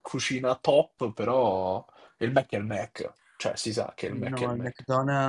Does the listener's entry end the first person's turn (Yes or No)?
Yes